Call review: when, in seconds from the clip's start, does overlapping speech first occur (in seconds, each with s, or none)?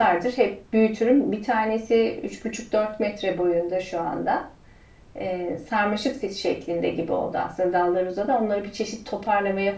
none